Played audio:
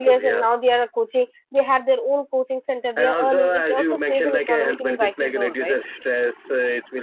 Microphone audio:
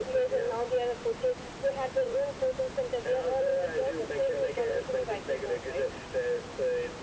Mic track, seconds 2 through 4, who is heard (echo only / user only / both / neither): echo only